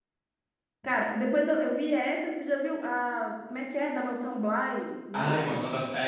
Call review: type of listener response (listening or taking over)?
taking over